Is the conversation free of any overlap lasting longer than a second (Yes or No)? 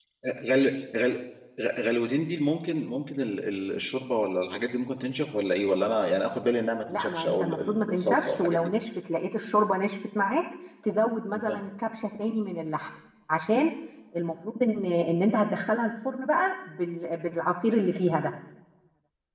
No